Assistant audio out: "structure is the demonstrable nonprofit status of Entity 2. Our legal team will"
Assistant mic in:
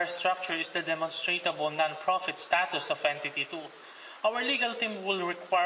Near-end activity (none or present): none